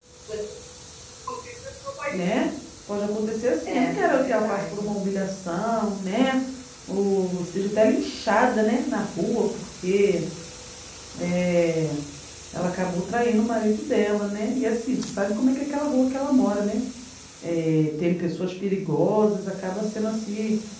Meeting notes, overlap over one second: present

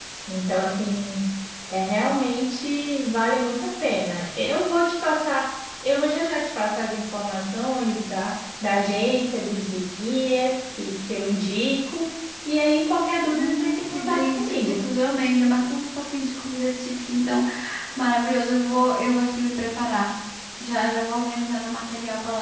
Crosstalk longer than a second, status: present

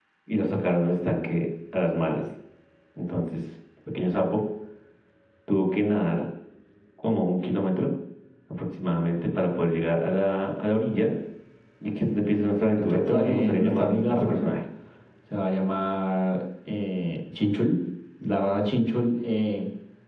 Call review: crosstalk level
present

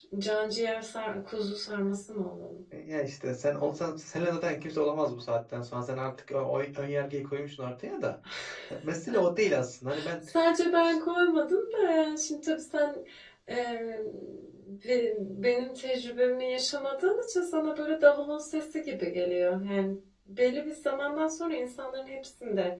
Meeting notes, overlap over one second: none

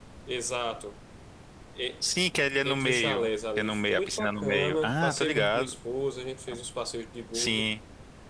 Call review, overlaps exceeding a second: present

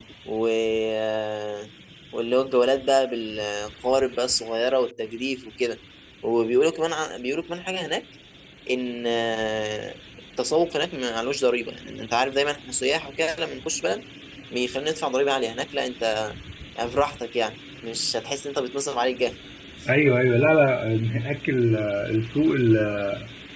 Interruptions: none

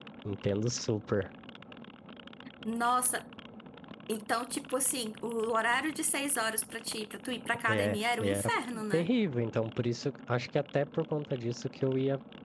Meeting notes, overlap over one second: present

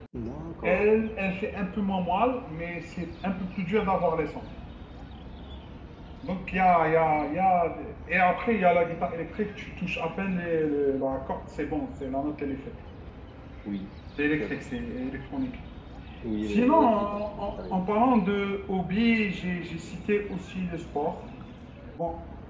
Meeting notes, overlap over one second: present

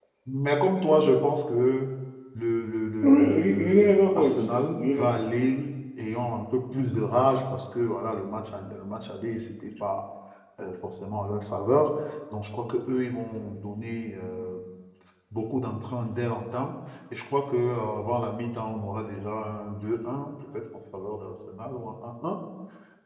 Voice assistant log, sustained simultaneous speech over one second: present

